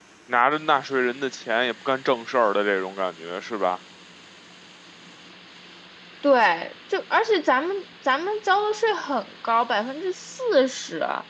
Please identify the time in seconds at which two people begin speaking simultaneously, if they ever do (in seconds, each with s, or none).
none